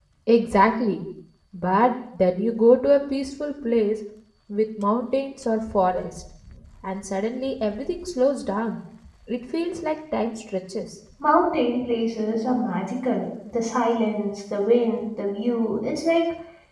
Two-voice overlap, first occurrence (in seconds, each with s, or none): none